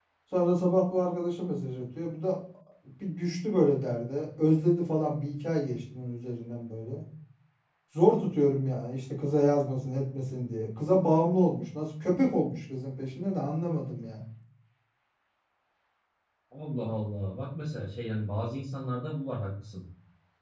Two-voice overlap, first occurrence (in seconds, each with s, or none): none